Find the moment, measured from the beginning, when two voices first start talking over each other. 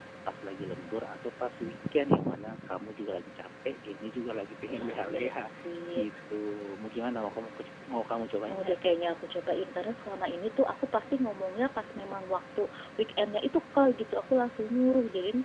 4.7 s

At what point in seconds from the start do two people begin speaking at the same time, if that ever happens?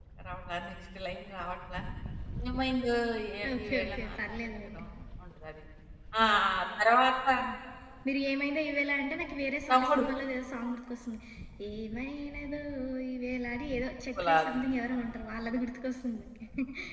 3.6 s

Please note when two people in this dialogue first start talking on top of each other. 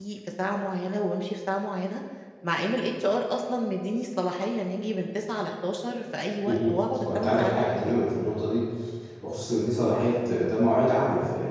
6.5 s

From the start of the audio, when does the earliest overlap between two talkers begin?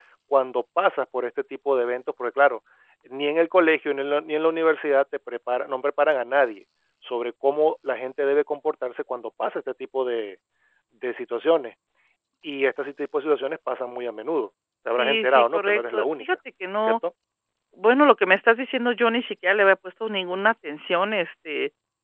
15.0 s

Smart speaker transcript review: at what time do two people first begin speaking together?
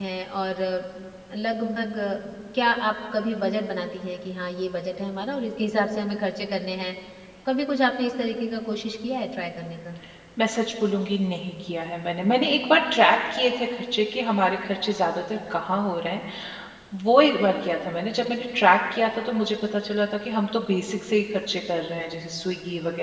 none

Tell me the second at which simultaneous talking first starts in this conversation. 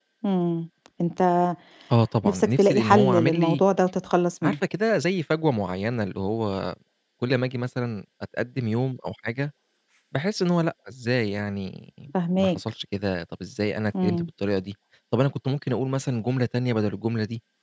2.2 s

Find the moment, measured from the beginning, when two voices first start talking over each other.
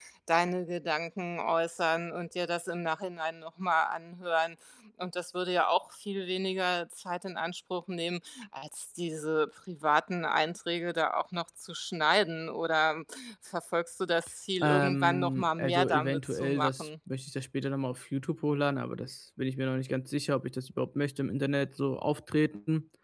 14.6 s

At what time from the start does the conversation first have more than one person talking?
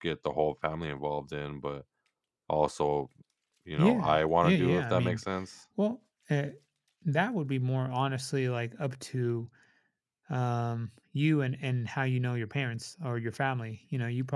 3.8 s

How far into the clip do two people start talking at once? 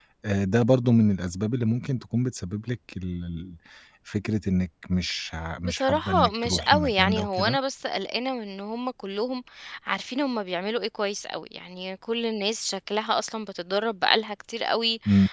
5.6 s

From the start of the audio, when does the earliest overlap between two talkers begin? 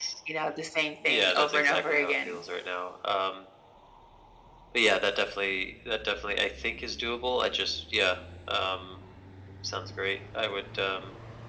1.0 s

